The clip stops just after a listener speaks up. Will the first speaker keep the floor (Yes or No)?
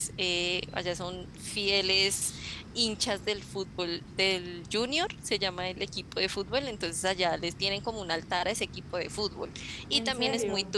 Yes